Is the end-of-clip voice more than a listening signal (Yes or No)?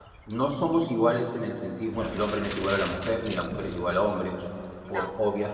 No